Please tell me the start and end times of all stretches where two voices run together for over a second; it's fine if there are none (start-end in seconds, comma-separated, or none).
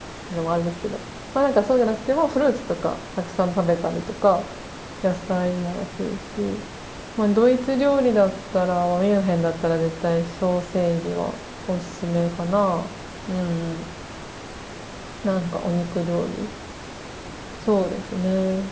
none